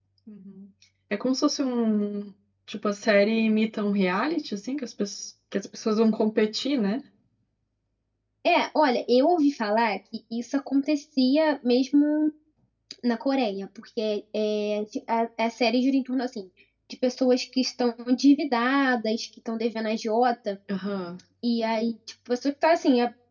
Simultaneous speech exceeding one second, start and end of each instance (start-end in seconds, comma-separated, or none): none